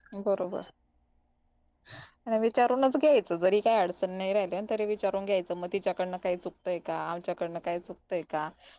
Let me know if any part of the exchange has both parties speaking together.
No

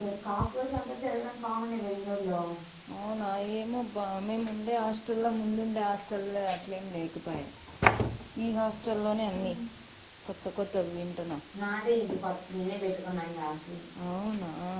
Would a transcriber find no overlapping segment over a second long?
Yes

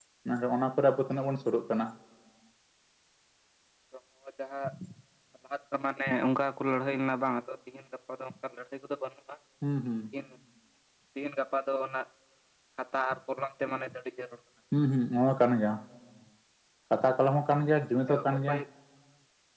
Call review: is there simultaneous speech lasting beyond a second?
No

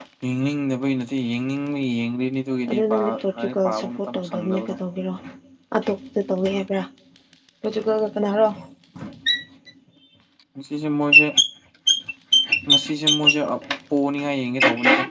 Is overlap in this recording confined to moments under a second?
No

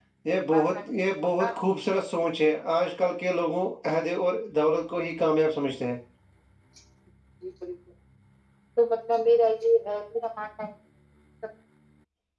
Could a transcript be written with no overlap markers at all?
Yes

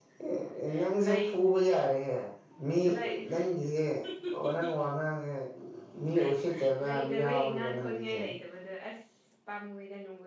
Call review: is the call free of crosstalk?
No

